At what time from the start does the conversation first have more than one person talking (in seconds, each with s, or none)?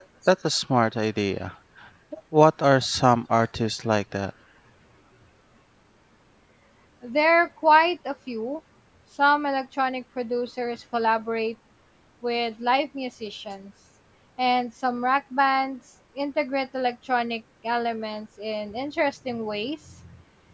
none